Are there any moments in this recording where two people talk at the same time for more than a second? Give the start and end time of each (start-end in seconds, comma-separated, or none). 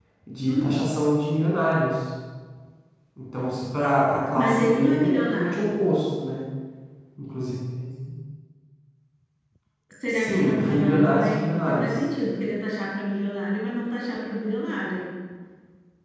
4.3-5.7, 10.1-11.9